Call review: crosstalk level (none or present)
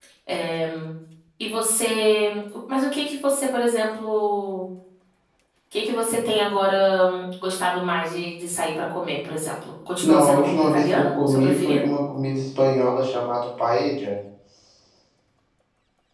present